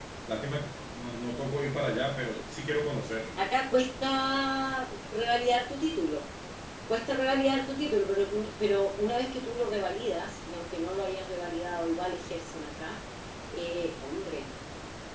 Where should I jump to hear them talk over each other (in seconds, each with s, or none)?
none